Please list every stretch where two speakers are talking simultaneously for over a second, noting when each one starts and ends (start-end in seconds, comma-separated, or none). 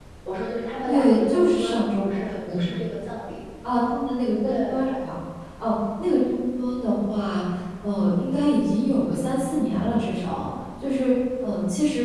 0.8-2.6